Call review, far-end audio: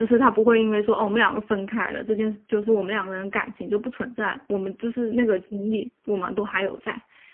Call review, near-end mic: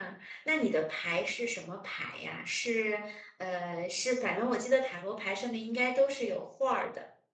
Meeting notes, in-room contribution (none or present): present